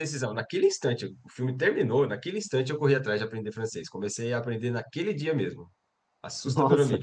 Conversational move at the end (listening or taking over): listening